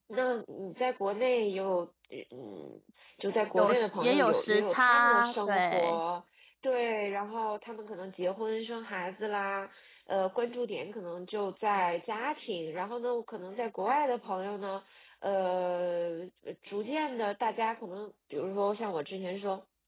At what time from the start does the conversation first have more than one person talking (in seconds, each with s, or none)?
3.6 s